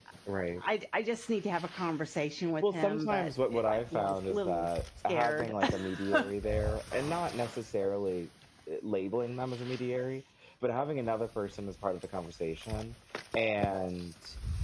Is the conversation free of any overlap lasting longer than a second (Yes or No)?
No